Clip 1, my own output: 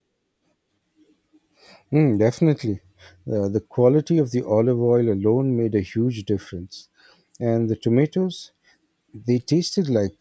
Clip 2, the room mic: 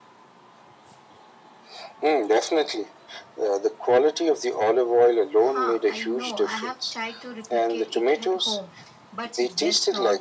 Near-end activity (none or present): present